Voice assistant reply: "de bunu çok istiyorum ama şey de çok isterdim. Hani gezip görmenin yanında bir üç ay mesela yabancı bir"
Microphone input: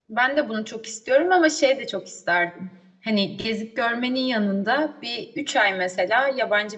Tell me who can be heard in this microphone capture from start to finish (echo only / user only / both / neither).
echo only